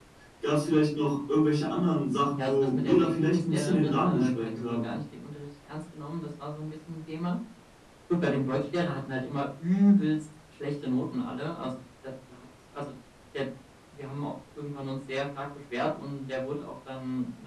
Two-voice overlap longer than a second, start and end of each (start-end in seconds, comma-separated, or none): 2.4-4.9